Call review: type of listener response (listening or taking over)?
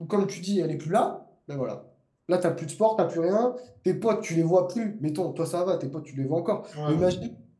listening